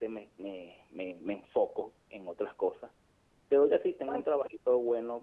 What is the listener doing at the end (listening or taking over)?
listening